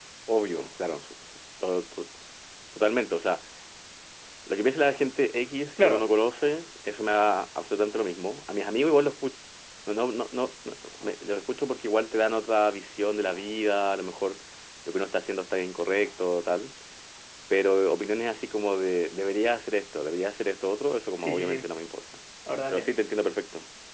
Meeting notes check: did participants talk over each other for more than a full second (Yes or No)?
No